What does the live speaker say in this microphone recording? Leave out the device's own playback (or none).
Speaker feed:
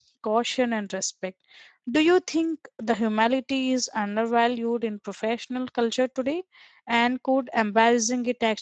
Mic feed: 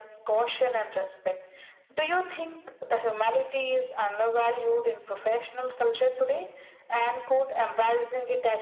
none